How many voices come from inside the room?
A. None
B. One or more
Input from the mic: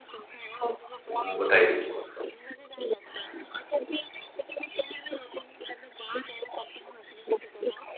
B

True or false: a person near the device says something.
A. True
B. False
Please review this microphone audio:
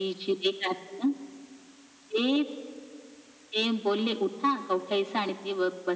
B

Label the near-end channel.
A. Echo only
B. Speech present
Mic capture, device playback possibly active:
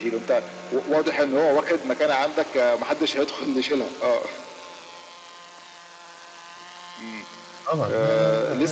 B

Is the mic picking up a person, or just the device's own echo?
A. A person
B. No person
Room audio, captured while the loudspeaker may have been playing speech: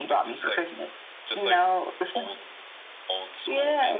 A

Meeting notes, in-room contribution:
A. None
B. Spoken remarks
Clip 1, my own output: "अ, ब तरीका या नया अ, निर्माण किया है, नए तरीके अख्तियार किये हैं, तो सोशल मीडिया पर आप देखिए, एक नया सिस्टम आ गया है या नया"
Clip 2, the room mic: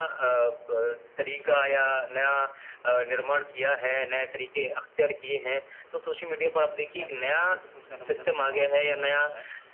B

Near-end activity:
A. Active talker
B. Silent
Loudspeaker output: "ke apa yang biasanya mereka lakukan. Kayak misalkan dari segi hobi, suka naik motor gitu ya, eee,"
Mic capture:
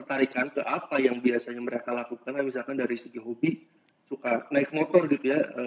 B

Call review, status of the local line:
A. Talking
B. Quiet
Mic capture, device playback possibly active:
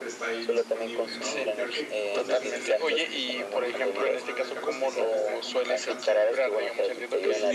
A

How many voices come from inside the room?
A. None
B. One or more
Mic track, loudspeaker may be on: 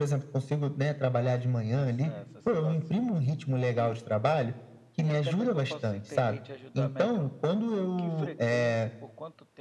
B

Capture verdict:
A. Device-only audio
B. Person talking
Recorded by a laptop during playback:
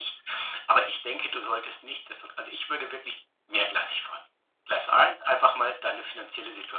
A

